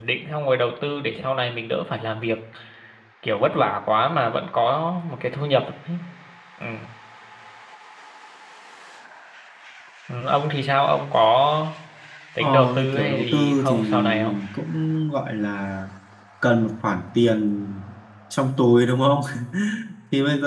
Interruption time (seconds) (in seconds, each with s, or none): 12.4 s